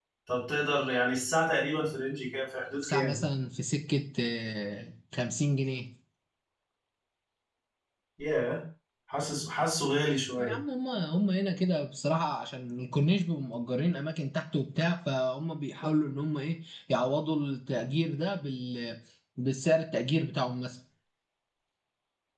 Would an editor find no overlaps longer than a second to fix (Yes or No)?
Yes